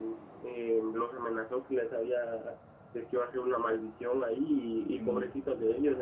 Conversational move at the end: listening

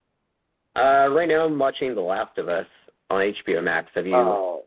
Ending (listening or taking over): taking over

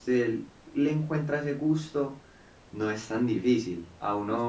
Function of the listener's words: listening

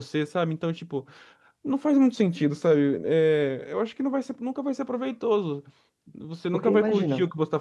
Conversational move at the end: listening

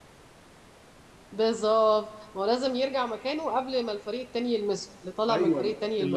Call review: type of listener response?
taking over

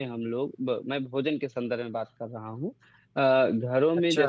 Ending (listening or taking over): listening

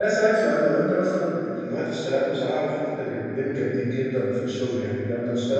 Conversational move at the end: listening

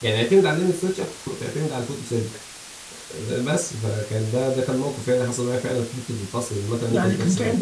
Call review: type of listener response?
taking over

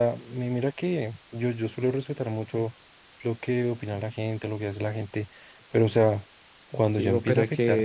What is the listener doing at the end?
taking over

